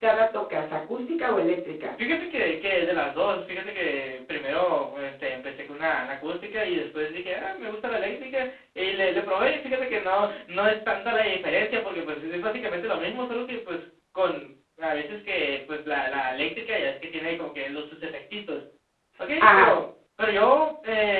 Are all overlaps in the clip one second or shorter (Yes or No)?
Yes